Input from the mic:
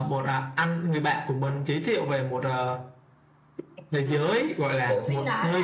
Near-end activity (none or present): present